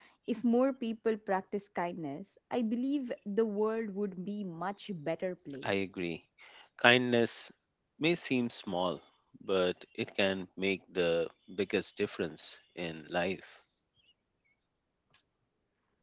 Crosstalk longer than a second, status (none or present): none